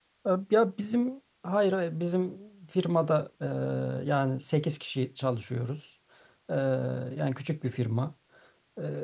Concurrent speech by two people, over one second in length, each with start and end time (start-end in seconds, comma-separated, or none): none